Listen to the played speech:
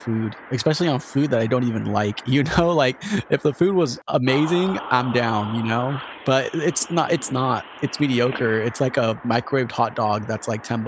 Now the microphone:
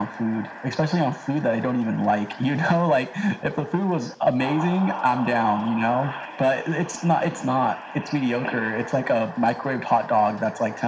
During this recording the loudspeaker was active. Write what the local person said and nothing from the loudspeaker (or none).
none